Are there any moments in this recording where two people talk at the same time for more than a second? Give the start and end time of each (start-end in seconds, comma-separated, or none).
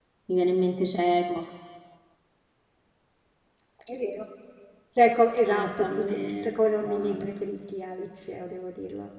5.5-7.3